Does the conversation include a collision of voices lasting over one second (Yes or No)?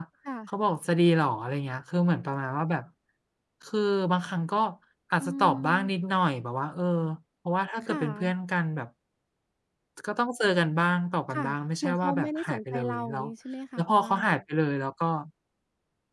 Yes